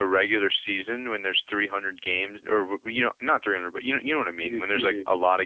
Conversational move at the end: listening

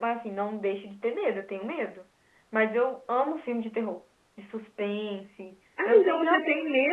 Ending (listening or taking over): taking over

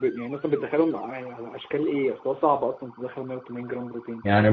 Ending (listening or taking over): taking over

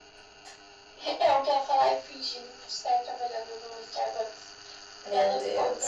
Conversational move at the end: listening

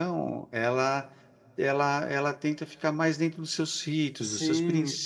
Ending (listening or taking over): taking over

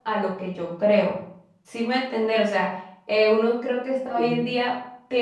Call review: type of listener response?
listening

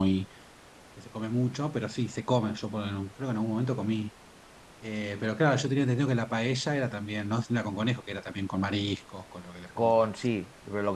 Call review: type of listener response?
taking over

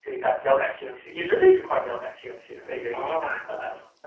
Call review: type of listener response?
taking over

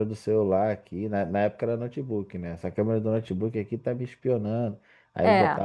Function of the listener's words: listening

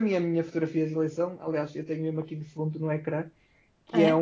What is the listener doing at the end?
listening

